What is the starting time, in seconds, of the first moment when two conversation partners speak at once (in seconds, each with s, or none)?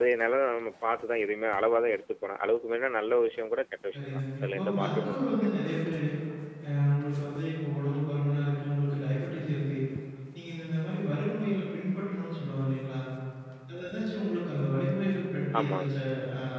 3.9 s